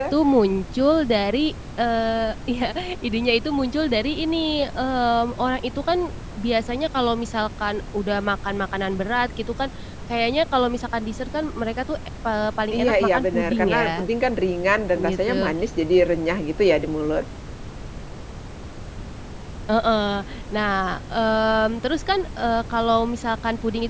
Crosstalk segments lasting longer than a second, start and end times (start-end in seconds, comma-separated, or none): 12.8-14.1